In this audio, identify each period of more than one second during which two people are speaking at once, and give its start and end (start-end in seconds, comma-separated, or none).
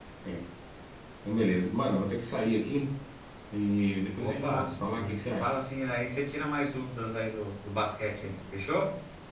4.2-5.5